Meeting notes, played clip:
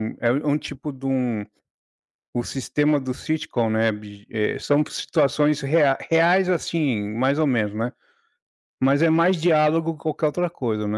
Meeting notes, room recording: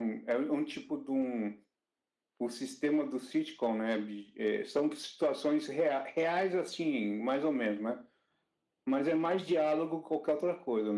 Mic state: echo only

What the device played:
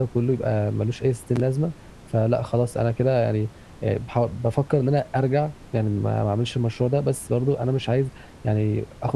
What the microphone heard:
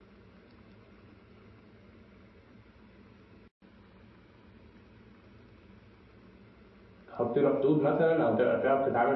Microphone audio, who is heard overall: user only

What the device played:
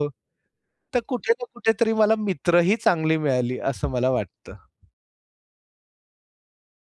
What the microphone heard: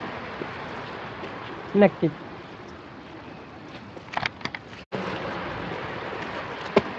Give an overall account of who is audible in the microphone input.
user only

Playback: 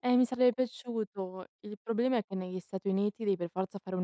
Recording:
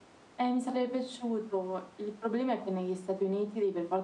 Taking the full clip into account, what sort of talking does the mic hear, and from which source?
echo only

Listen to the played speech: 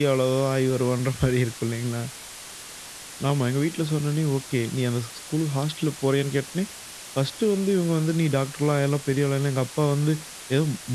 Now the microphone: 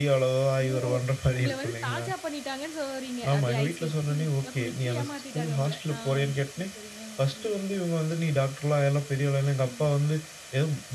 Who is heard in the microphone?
both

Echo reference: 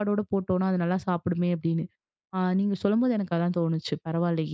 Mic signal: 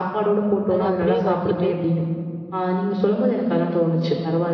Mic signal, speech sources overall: both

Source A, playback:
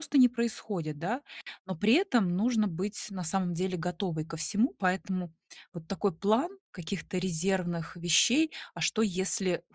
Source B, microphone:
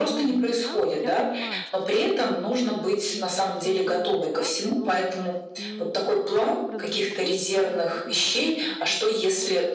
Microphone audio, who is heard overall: both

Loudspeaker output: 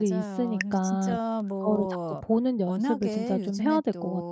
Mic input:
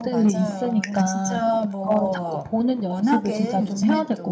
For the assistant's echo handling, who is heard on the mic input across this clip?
echo only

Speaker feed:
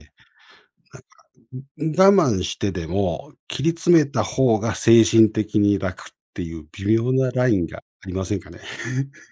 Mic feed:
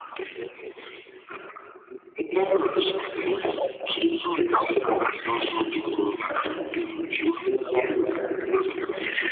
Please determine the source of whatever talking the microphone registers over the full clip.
echo only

